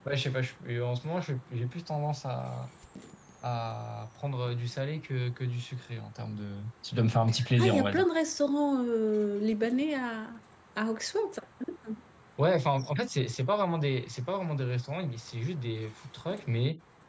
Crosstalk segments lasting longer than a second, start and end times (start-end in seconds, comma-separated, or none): none